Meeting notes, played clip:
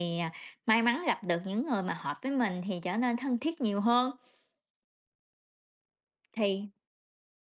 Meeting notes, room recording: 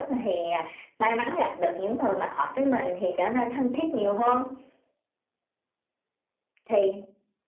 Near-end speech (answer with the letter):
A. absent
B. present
A